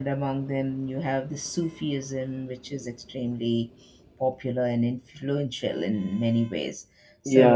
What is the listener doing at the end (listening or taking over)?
taking over